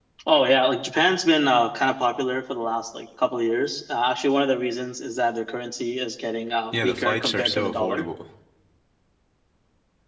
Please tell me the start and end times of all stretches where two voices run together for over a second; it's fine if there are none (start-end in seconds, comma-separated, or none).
6.7-8.0